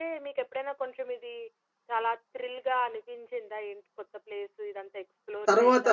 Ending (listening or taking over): taking over